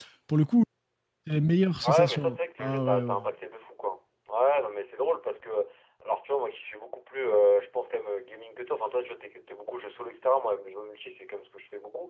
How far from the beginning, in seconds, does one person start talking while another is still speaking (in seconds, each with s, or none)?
1.8 s